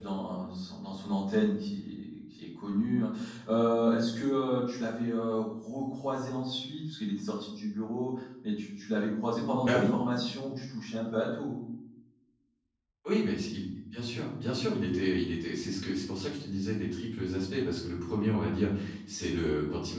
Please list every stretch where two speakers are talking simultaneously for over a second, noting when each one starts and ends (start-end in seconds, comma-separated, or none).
none